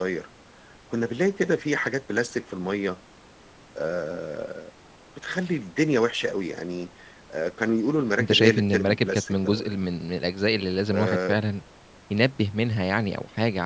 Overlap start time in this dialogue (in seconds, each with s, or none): 8.2 s